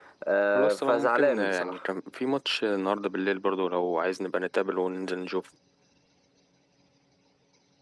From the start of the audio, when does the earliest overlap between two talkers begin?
0.5 s

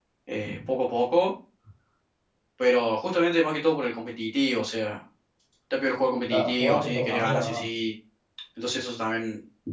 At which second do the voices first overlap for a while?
6.3 s

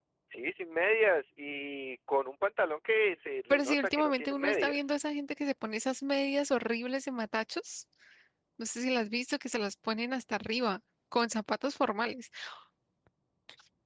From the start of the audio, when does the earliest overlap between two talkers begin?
3.5 s

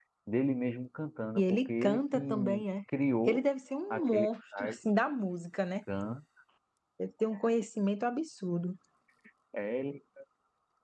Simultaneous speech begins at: 1.4 s

